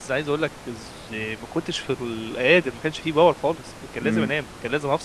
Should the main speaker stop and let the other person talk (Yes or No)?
No